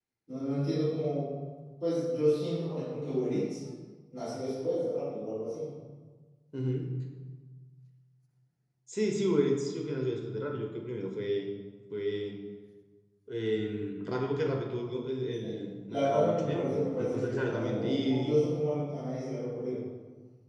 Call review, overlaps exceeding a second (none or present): present